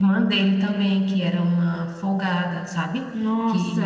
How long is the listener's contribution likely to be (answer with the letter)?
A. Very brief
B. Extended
B